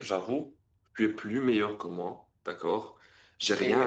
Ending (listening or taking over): taking over